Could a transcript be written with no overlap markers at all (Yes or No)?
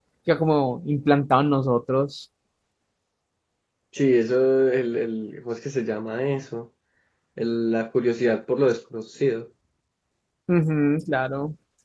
Yes